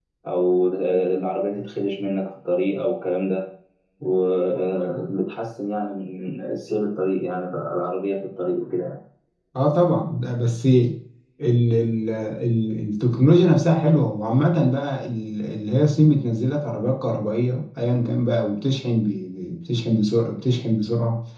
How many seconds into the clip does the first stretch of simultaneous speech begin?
none

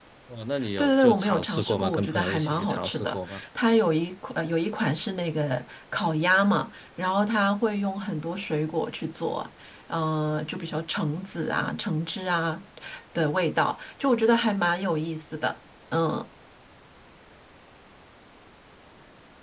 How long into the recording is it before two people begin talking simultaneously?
1 s

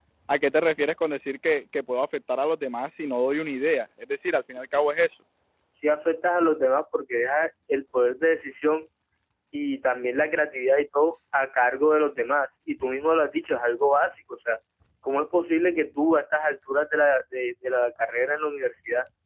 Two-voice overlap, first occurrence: none

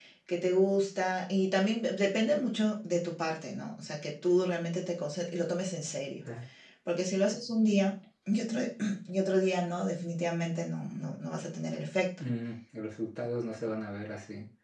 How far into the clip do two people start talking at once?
none

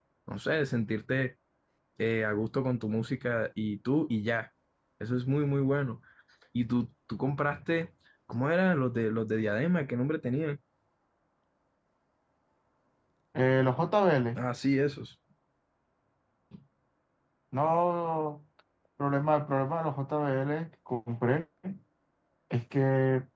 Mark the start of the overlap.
none

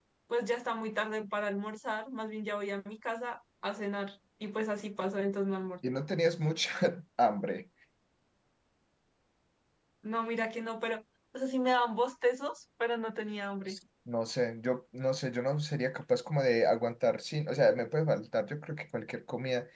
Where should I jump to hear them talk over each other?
none

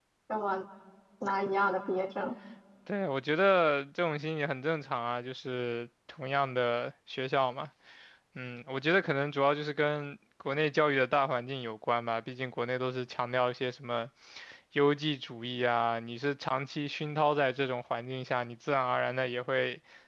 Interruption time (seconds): none

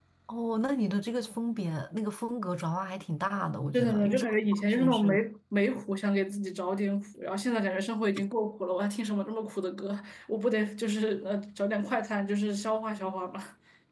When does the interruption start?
4 s

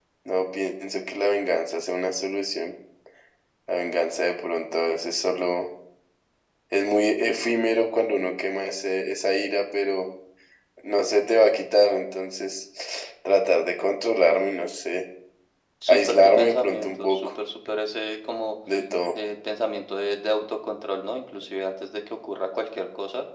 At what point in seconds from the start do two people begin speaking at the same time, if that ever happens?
16 s

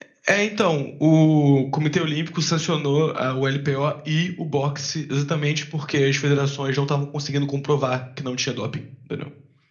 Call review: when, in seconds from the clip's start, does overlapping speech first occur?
none

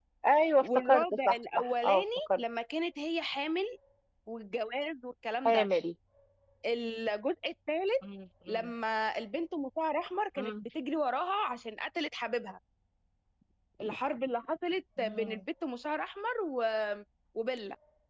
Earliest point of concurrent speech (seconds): 1 s

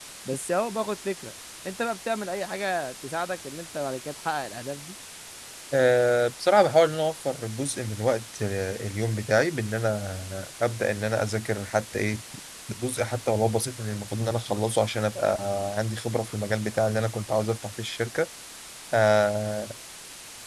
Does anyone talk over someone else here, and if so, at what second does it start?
none

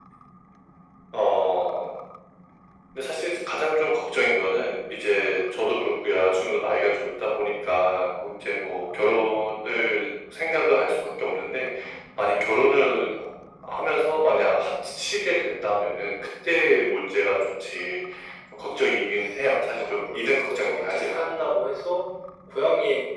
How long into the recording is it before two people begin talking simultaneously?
20 s

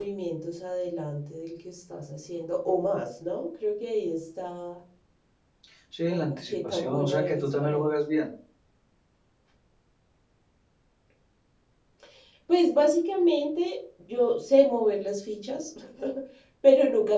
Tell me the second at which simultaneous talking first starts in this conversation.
6 s

